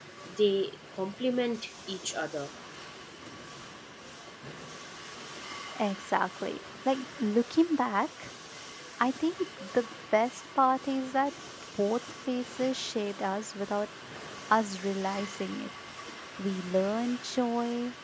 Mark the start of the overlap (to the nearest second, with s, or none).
none